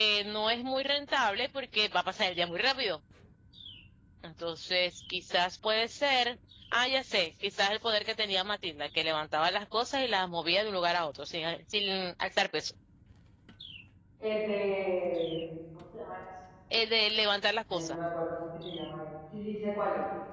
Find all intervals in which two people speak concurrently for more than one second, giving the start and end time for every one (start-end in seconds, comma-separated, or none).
none